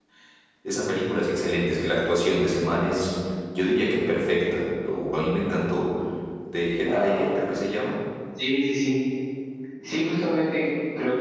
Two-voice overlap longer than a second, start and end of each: none

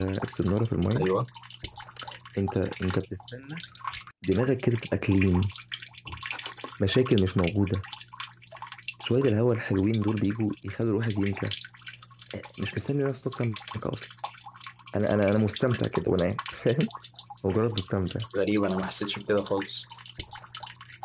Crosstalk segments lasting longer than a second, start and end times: none

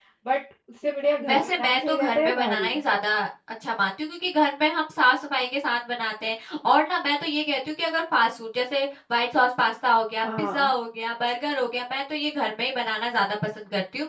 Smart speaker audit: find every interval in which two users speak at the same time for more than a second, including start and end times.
1.3-2.7

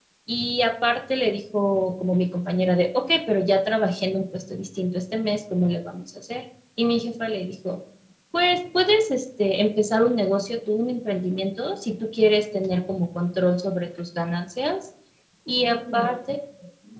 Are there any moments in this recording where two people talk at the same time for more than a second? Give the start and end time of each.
none

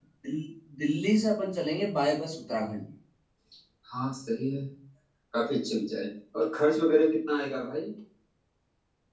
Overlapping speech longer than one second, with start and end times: none

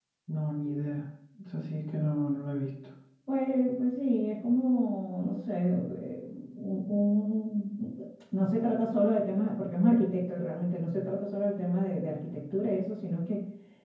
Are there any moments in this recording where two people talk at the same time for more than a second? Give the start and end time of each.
none

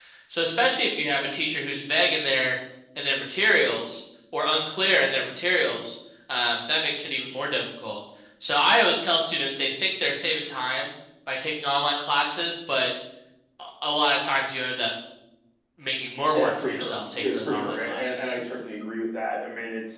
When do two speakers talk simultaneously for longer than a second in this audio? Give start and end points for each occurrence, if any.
16.3-18.3

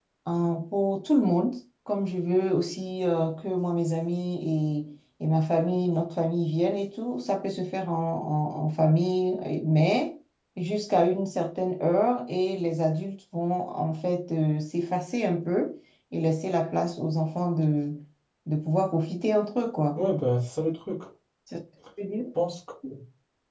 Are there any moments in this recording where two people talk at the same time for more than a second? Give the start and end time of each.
none

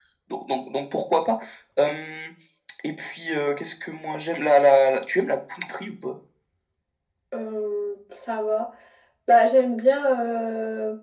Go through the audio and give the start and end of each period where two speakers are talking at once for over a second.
none

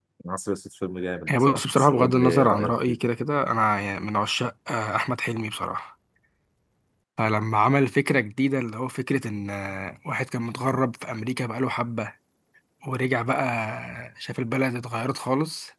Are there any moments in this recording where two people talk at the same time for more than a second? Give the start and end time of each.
1.4-3.0

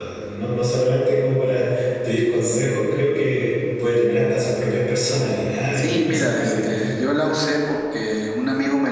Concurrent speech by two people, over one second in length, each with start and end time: 5.7-7.0

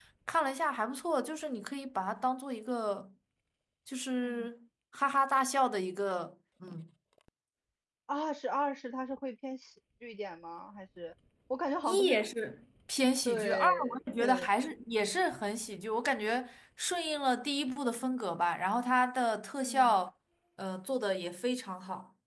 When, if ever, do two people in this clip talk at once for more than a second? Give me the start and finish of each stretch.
13.2-14.5

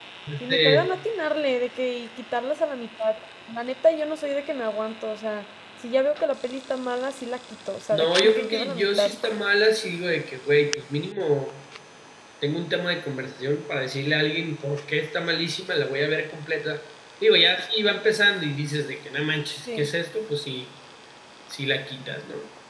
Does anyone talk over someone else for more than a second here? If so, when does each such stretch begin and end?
7.9-9.1

